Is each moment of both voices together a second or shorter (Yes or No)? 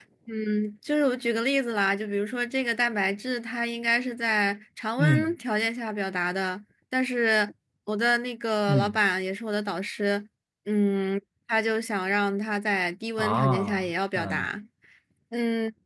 No